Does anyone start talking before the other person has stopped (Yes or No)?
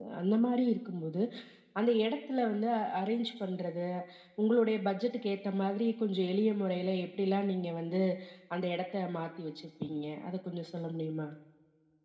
No